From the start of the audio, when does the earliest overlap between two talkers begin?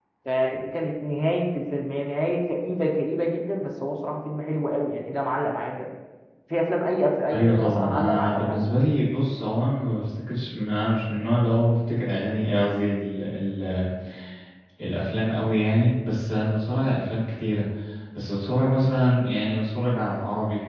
7 s

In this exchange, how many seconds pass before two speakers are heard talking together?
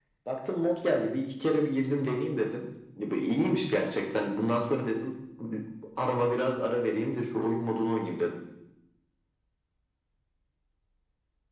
none

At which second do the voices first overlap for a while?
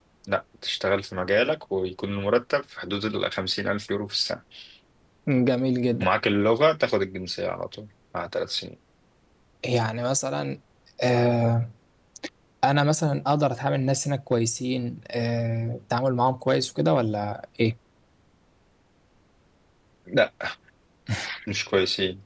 none

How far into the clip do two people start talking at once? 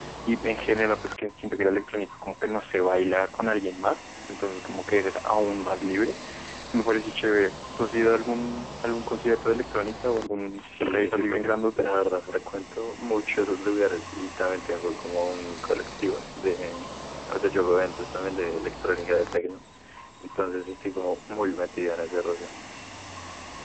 10 s

